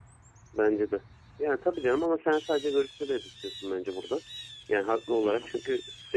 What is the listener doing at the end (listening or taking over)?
listening